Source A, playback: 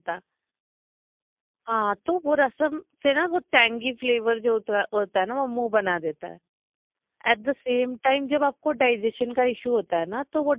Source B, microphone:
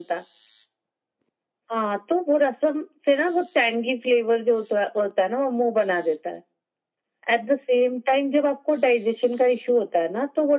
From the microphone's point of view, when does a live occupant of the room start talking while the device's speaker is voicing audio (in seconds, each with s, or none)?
none